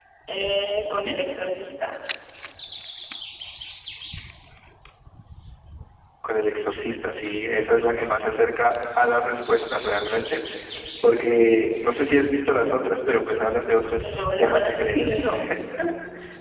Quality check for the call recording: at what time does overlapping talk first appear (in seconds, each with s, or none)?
14.0 s